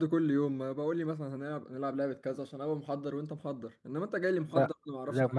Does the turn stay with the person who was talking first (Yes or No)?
No